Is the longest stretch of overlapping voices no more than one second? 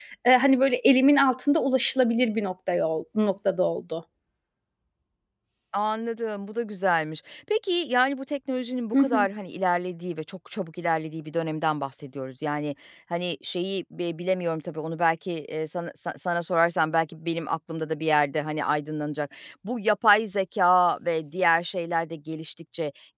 Yes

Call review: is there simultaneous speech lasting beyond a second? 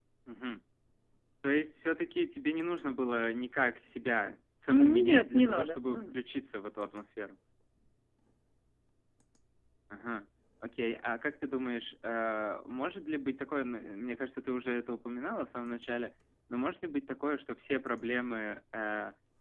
Yes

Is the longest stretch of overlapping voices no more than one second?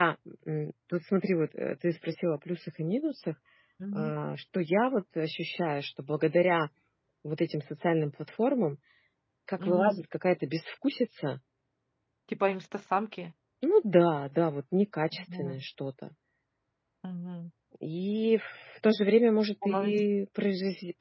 Yes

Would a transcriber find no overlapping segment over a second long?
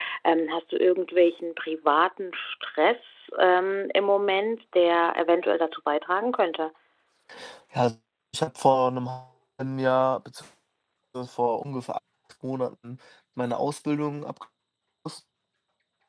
Yes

